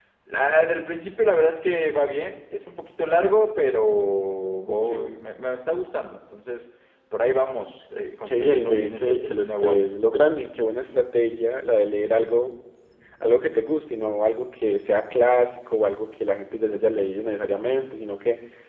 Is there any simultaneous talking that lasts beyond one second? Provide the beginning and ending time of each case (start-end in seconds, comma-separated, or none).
8.2-10.0